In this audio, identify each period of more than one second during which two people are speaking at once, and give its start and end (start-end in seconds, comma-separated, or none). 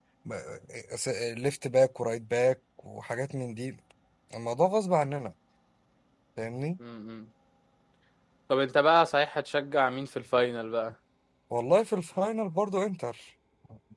none